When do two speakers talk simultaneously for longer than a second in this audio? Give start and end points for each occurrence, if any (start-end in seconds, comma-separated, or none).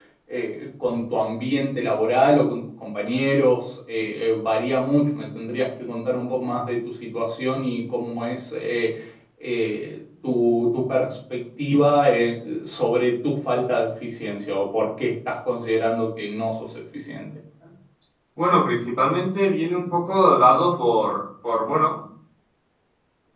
none